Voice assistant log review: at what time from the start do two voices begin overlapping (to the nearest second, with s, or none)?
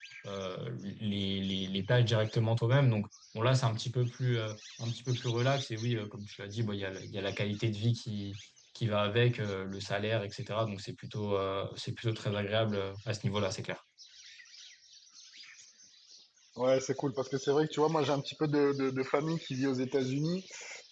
none